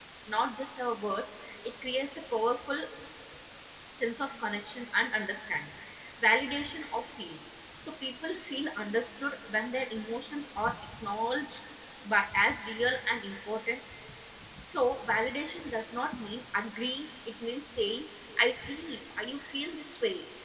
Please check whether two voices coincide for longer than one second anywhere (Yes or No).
No